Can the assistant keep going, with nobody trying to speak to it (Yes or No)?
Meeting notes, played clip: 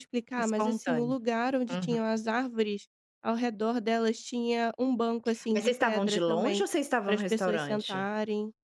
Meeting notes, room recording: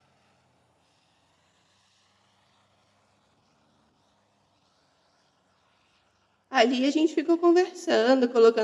No